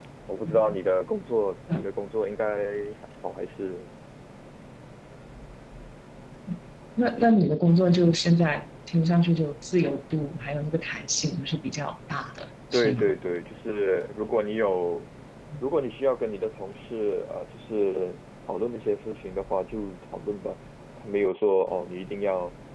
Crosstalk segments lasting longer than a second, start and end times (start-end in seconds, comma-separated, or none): none